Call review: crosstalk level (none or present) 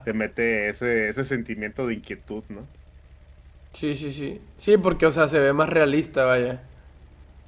none